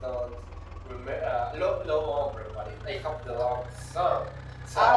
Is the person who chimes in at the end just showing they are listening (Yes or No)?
No